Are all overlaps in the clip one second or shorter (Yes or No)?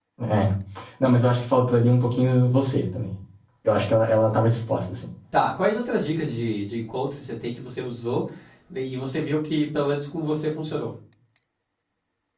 Yes